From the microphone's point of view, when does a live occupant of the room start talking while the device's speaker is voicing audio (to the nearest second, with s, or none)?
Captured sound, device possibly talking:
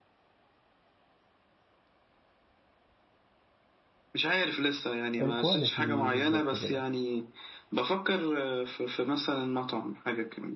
5 s